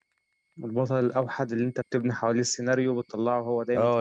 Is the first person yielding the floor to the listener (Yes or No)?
Yes